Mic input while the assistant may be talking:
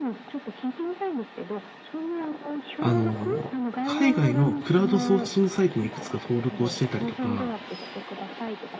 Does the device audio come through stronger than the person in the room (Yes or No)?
No